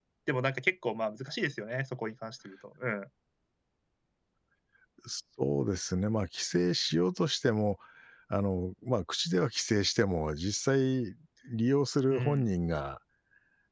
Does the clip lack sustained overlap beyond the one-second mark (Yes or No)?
Yes